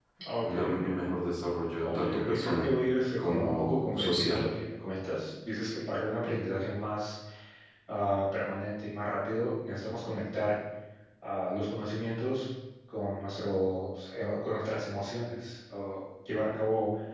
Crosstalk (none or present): present